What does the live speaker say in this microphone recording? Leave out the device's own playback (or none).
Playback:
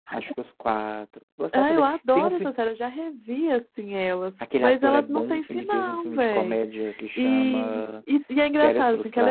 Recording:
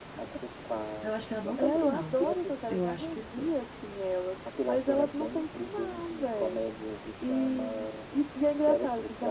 eu acho que ela não tem final. Eu acho que foi.